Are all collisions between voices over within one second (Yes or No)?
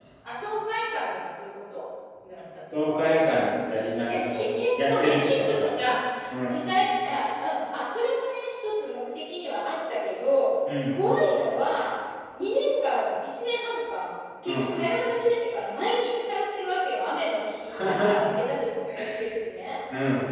No